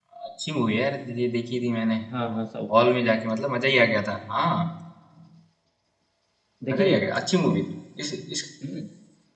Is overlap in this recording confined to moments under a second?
Yes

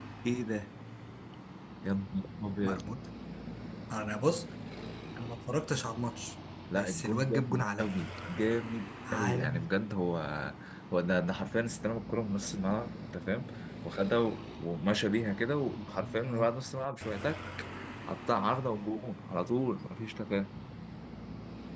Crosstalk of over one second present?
Yes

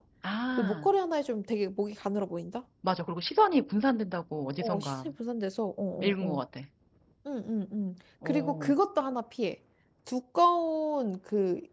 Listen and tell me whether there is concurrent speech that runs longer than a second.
No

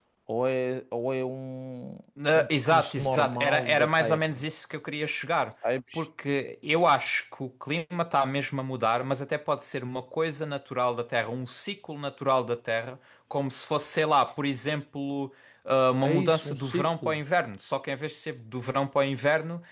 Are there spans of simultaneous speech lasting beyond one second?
Yes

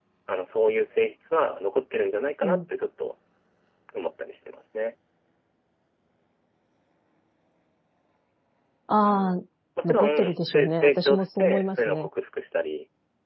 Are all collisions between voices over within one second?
No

